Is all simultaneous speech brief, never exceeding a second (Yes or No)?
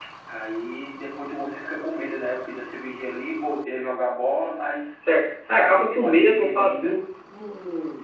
No